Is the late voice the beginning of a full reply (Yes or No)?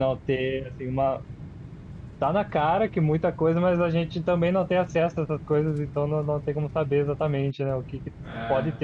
No